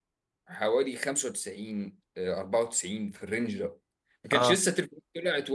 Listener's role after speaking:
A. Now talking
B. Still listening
B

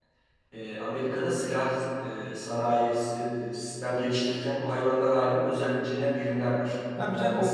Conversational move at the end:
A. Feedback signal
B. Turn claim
B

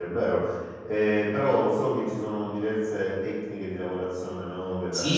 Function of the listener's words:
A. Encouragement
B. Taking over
B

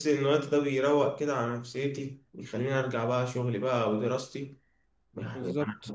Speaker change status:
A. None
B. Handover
A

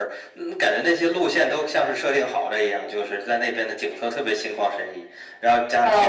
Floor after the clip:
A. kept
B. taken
B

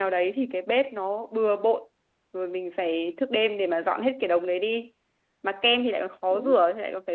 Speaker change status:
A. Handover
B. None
B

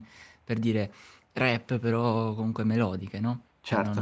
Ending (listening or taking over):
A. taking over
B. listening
A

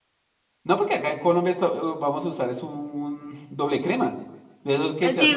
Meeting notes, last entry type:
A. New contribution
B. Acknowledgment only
A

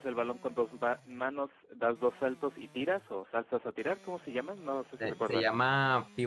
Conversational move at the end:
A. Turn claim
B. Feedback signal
A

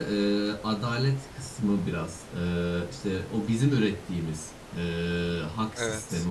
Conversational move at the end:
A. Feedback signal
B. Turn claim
A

